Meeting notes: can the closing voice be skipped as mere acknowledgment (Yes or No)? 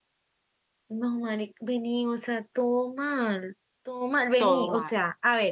Yes